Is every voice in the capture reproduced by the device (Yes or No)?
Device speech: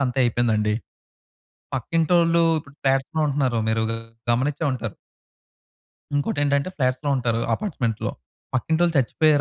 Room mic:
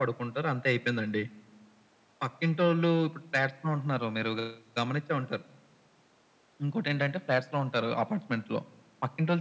Yes